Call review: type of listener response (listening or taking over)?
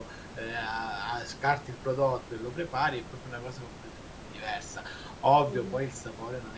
listening